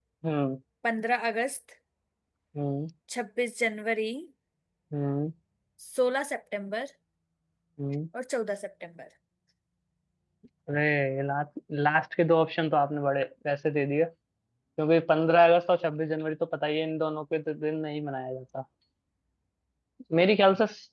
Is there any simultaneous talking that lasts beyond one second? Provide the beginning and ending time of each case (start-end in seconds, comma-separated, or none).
none